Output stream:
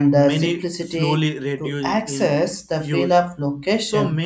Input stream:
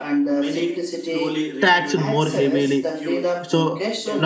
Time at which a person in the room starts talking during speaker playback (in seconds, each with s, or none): 1.6 s